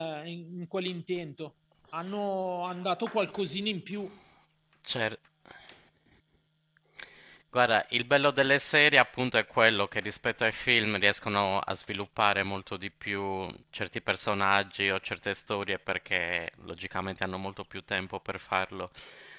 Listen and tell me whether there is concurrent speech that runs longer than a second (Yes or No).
No